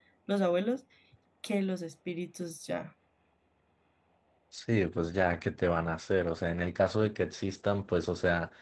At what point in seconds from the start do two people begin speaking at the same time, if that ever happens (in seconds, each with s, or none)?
none